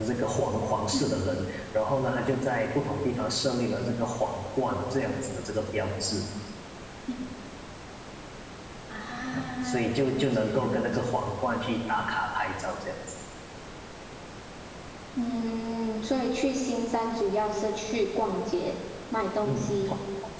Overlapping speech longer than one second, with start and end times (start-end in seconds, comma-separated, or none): 9.3-11.0